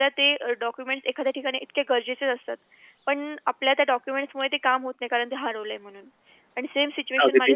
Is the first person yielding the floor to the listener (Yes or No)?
No